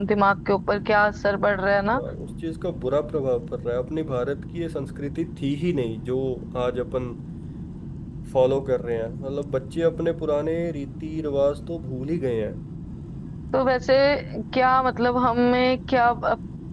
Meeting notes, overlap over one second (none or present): none